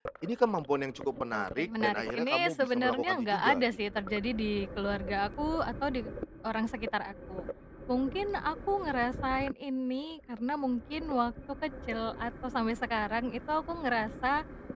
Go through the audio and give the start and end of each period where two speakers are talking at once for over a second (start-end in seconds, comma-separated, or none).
1.3-3.6